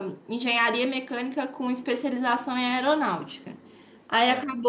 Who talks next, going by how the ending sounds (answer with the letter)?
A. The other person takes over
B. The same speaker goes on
B